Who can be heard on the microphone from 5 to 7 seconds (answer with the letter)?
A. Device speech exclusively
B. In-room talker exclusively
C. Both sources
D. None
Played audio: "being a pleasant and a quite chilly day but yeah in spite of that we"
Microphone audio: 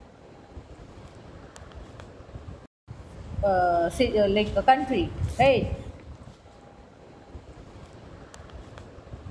B